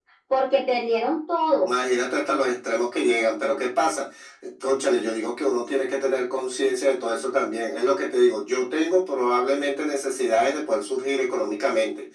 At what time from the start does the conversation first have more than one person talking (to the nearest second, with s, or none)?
none